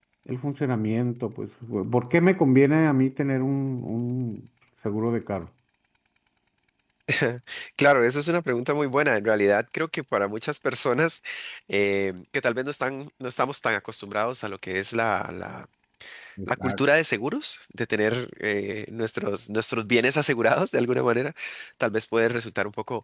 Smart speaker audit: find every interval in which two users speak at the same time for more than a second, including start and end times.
none

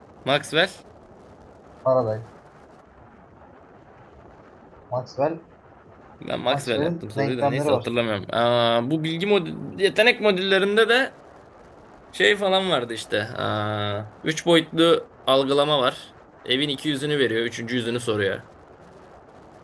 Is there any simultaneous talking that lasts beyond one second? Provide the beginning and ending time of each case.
6.5-7.9

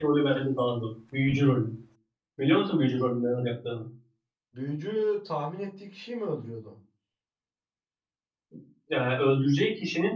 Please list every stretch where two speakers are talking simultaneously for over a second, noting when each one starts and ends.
none

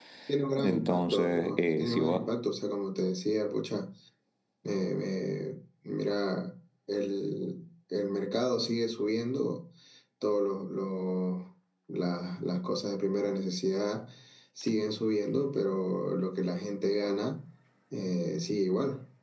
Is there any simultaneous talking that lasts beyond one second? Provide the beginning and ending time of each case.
0.6-2.2

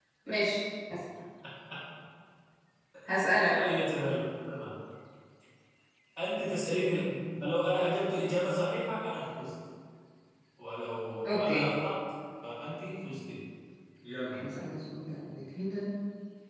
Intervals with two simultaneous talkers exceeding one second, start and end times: none

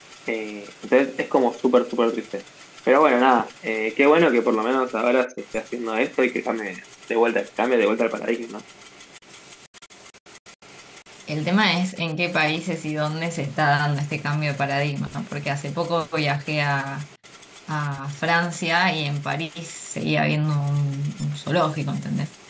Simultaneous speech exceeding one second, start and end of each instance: none

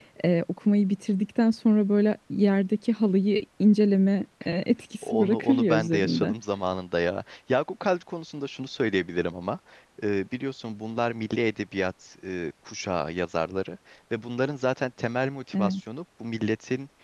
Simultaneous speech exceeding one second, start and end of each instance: 5.1-6.3

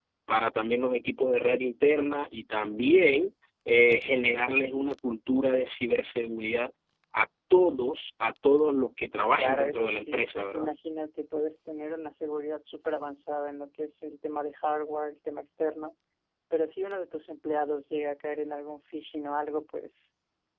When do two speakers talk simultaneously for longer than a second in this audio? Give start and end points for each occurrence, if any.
9.3-10.7

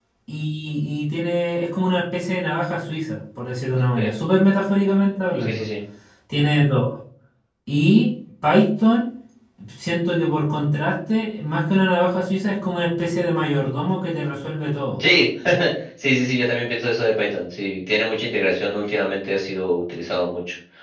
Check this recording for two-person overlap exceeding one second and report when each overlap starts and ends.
none

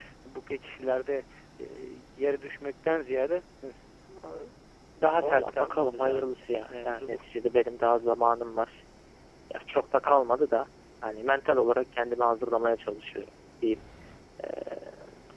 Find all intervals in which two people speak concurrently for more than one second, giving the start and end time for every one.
5.2-7.2

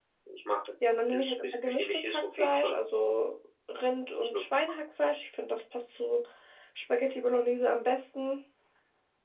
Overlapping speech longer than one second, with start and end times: 1.1-2.8

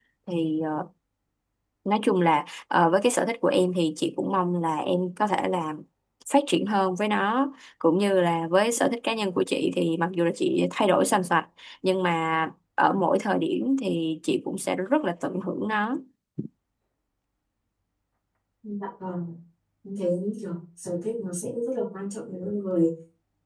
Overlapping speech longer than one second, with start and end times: none

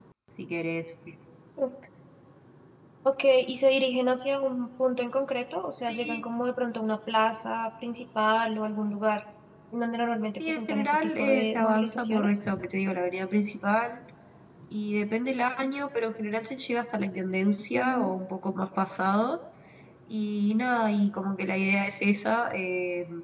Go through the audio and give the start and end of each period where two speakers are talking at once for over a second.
10.4-12.4

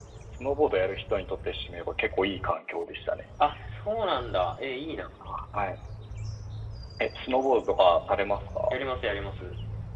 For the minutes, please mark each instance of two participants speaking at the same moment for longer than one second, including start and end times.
none

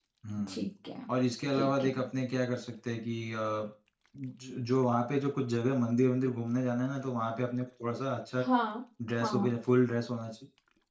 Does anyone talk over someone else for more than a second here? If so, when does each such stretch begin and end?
none

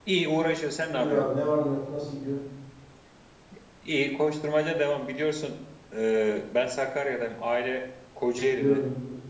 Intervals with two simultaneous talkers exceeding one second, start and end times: none

